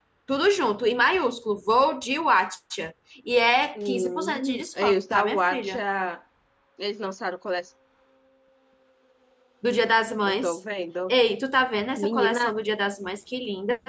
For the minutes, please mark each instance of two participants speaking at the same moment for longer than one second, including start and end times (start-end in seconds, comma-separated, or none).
3.9-5.8